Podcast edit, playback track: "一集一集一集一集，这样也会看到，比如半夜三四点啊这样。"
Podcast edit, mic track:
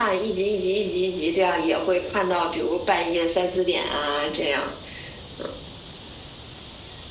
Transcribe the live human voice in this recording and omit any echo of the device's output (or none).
none